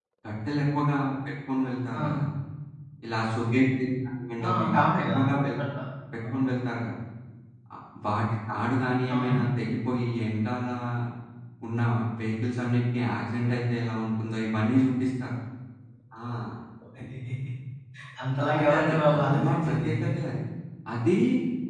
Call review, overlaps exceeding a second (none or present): present